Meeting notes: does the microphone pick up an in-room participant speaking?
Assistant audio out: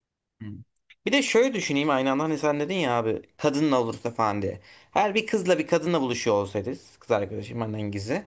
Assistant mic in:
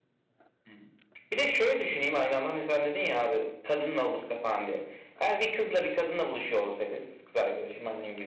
No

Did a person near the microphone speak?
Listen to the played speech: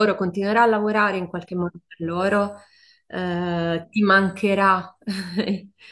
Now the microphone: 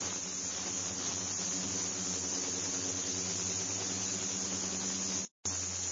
No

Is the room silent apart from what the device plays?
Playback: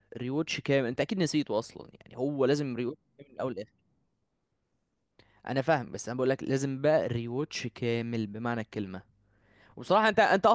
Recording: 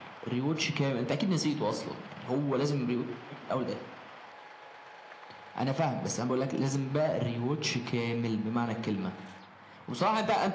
Yes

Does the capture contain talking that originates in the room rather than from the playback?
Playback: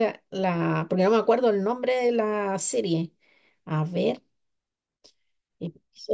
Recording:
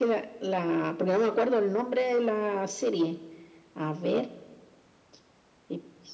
No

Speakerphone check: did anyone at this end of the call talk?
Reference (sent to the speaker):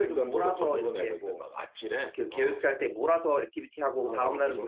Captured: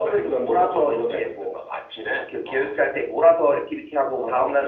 No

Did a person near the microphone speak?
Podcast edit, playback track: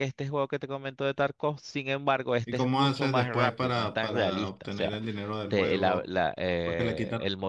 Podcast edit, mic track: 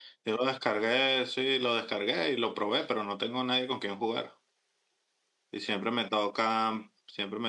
Yes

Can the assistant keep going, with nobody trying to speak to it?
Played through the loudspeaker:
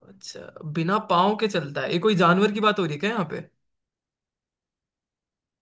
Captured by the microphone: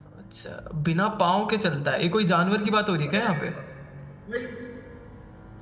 No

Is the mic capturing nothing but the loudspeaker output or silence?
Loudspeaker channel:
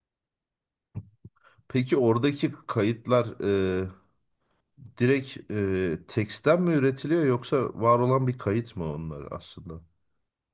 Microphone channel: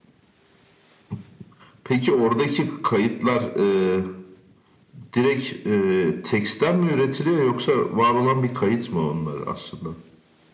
Yes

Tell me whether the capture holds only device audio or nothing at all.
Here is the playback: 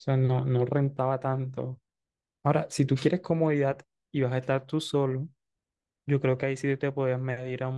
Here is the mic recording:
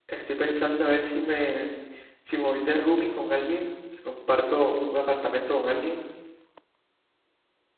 No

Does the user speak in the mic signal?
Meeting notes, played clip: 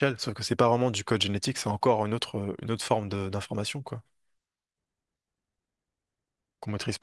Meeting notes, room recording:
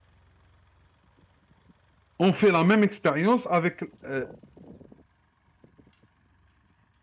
Yes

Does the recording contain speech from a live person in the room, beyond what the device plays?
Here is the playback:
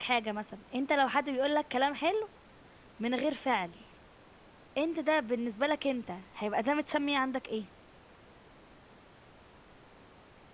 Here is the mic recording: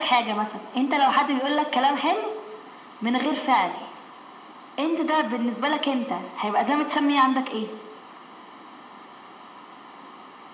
No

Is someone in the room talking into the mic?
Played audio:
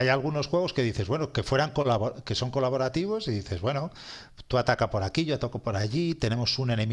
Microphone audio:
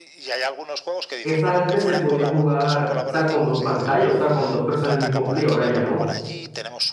Yes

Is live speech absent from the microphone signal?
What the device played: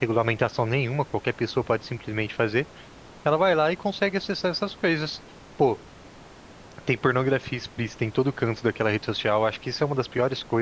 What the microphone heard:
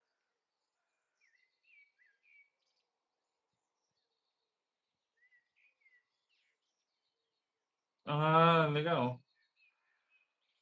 No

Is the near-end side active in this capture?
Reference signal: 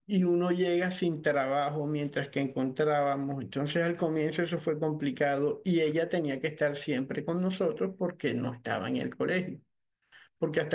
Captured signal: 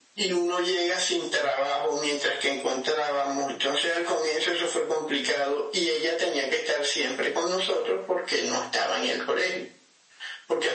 No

